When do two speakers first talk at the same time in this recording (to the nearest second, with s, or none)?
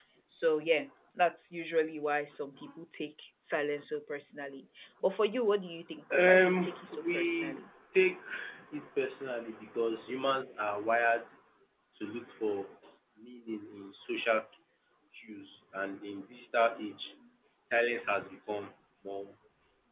6 s